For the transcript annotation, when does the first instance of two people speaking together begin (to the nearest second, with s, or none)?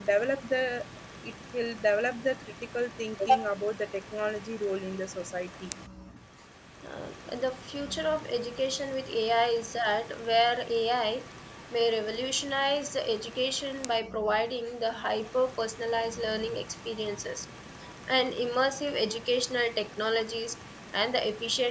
none